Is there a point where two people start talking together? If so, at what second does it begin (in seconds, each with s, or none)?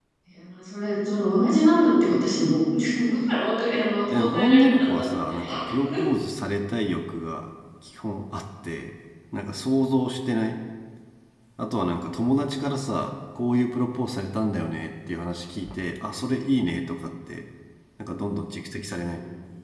4.1 s